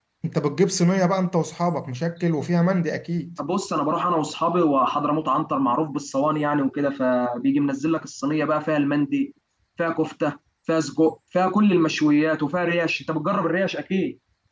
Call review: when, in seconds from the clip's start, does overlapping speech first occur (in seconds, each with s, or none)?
none